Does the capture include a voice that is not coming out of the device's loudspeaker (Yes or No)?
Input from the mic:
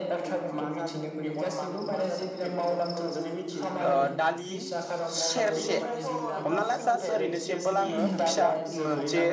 Yes